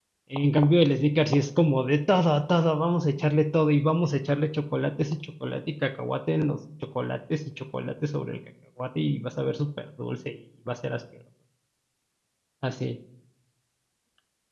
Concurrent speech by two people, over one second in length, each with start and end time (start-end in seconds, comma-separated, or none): none